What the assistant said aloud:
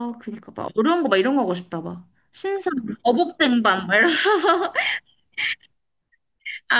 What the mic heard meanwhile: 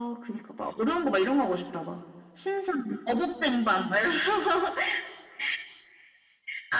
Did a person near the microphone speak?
No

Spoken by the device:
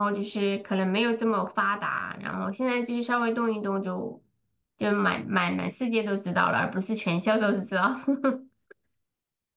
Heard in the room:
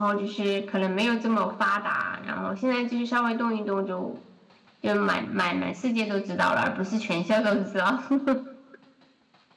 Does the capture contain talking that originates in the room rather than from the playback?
No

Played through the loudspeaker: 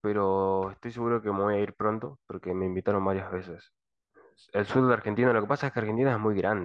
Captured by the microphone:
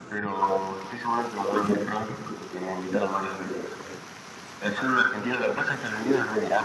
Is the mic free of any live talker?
Yes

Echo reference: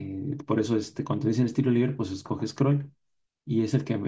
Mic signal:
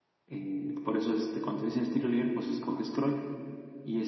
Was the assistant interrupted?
No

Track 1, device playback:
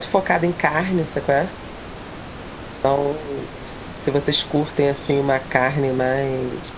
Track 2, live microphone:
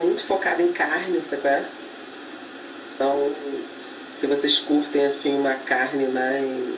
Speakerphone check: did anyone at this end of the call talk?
No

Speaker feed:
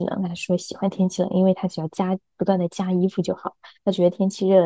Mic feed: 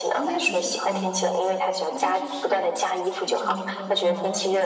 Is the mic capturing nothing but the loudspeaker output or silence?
No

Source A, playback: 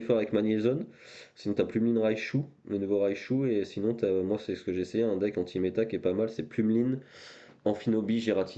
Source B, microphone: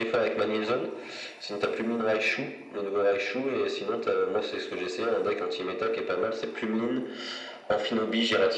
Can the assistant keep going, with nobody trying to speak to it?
Yes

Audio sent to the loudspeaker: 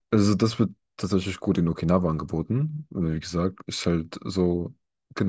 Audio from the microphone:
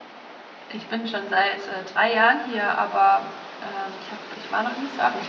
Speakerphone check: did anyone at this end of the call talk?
Yes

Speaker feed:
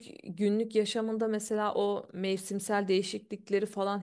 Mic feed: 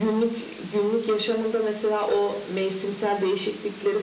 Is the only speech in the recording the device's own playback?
Yes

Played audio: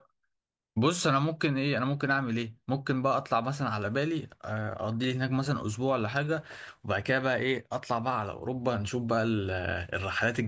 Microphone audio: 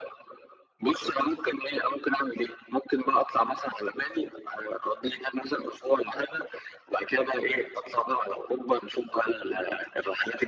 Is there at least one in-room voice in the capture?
No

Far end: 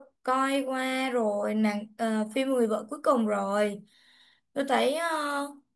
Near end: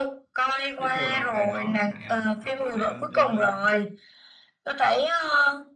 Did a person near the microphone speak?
Yes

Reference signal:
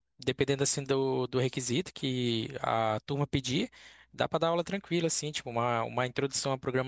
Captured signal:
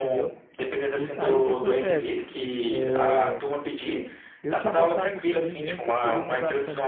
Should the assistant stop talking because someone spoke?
Yes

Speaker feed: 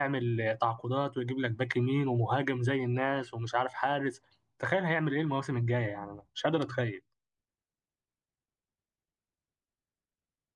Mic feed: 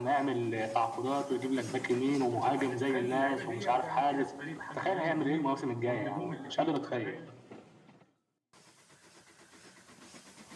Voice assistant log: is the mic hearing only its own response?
No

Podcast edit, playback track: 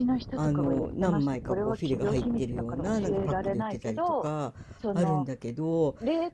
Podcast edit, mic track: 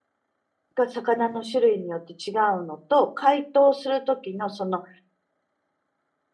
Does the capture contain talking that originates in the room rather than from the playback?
Yes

